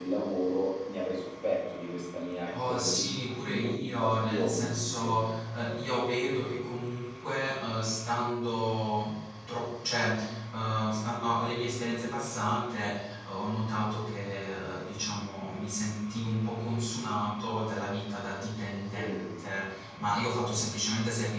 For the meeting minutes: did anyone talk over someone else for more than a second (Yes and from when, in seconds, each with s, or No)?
Yes, from 2.5 s